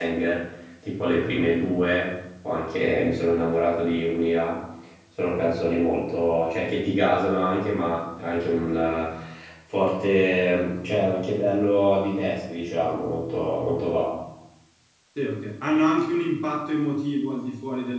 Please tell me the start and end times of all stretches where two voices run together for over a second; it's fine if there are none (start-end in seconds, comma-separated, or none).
none